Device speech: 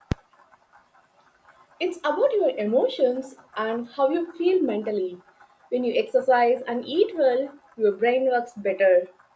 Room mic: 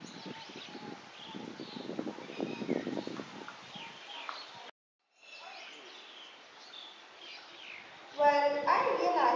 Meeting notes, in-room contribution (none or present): present